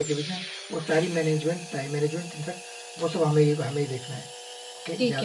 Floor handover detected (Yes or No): Yes